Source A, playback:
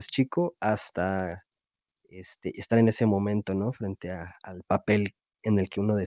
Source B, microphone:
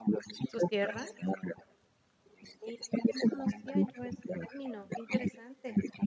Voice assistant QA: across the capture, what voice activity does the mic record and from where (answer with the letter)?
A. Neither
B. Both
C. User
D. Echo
B